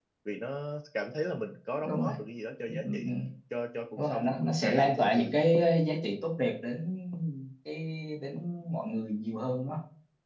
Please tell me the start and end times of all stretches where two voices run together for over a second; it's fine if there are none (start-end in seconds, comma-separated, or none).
4.0-5.3